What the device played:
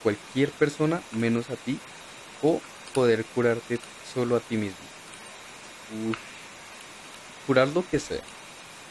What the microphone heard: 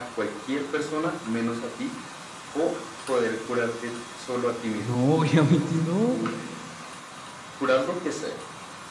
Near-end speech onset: 5 s

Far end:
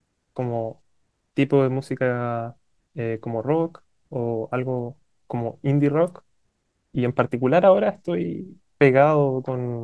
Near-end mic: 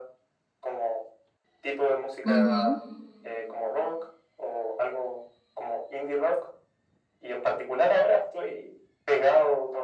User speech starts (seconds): 2 s

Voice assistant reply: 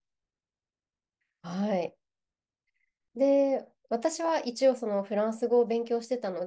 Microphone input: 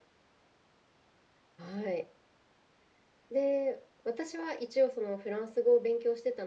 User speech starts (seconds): none

